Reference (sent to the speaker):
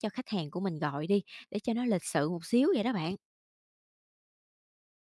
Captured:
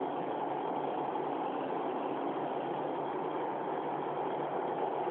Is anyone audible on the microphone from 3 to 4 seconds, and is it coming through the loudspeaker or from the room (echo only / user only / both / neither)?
neither